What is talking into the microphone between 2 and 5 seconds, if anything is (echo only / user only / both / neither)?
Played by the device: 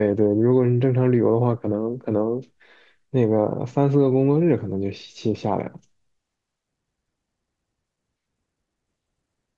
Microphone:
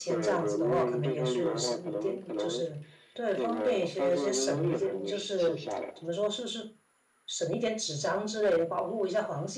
both